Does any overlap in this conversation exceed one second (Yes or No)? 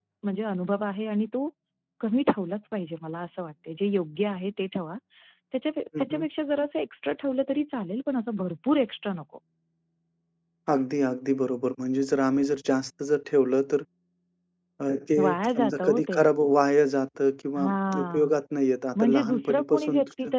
Yes